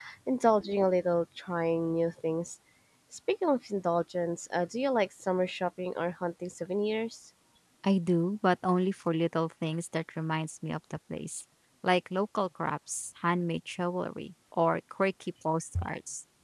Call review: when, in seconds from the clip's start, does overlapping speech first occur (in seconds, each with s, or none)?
none